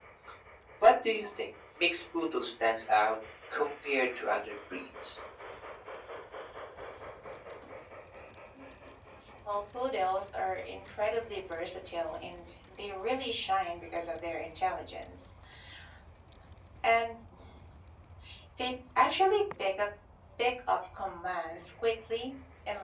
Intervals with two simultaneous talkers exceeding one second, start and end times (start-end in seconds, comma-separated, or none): none